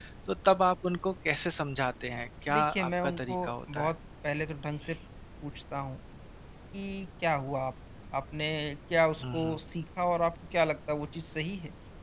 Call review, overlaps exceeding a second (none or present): present